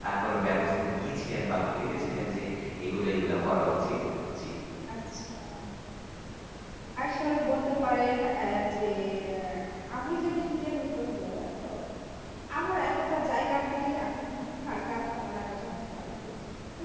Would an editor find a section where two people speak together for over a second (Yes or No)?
No